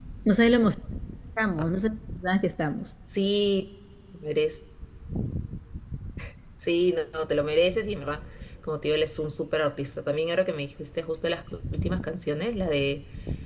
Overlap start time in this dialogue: none

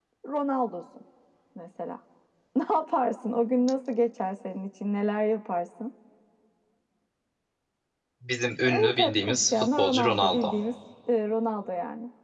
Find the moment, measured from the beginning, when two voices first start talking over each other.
8.6 s

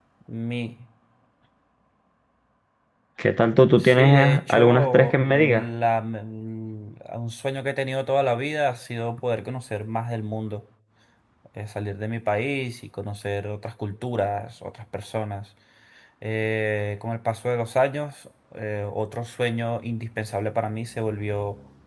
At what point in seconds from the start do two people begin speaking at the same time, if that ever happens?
3.8 s

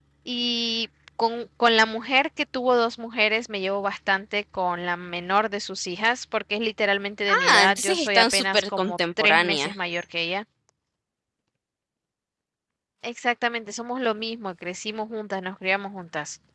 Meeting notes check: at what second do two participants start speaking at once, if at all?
7.3 s

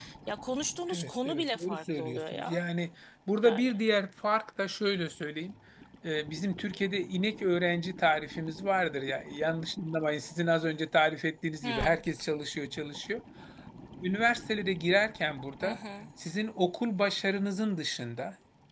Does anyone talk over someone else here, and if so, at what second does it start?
0.9 s

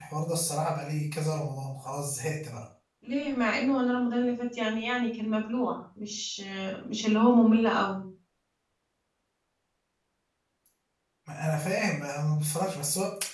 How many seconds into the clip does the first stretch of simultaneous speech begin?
none

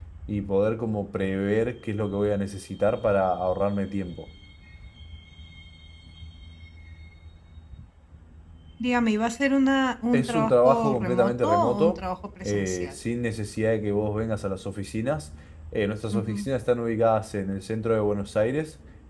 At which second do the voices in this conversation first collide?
10.1 s

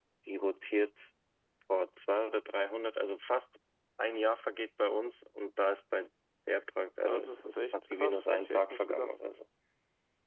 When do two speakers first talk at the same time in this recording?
7.0 s

